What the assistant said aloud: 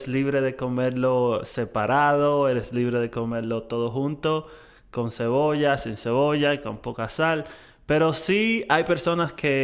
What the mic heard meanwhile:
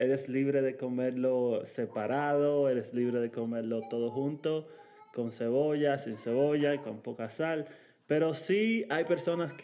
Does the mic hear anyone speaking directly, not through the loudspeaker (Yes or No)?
No